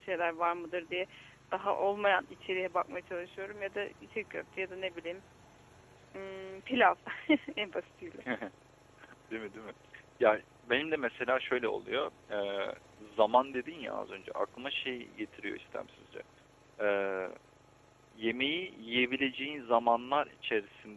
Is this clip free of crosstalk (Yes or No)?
Yes